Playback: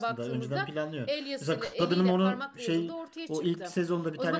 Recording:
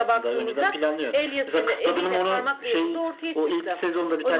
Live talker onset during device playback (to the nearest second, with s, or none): none